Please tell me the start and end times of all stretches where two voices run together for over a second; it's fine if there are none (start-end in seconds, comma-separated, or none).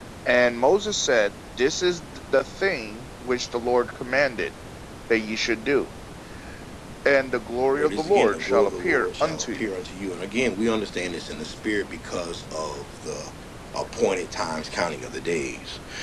7.7-9.7